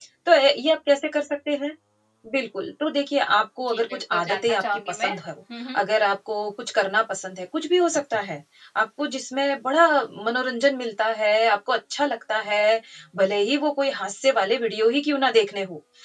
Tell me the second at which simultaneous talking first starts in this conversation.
3.7 s

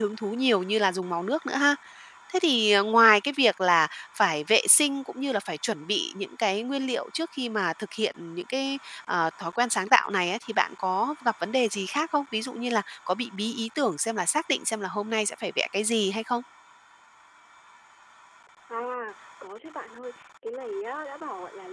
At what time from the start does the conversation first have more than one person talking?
none

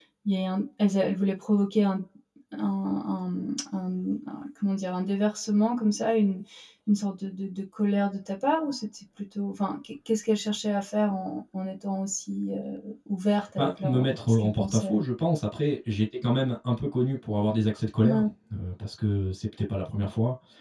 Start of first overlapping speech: 13.6 s

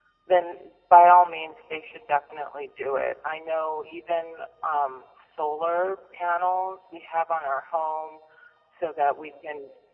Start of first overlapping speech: none

